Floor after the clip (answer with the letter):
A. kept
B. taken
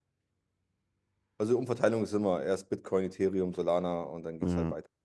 B